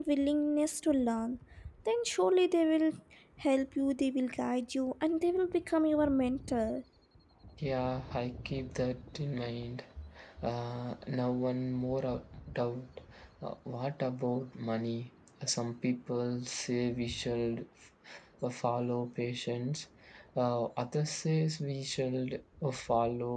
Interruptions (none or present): none